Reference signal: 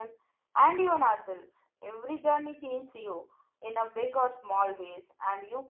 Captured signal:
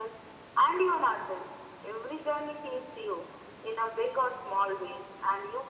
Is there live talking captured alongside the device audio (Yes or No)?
No